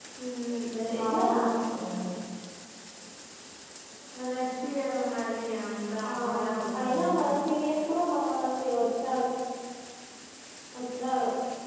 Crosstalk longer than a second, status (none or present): present